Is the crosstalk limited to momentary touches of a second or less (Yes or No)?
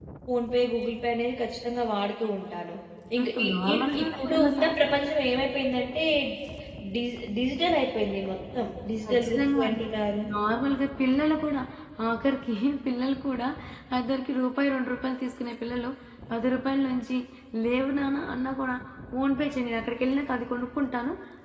No